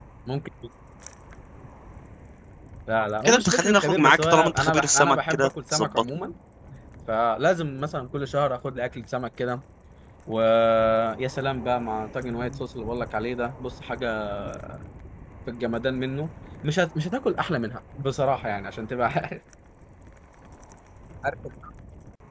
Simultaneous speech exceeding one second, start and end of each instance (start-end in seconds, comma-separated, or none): 3.2-6.2